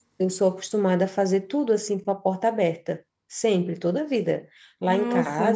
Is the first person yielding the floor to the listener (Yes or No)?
No